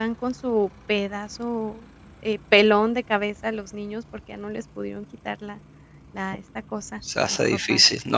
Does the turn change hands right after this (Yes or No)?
Yes